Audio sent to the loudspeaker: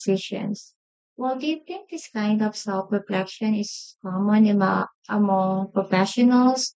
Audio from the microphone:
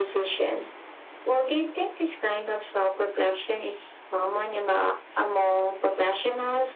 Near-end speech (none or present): none